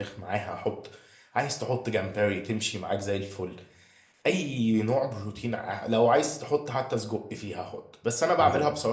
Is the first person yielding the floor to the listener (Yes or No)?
No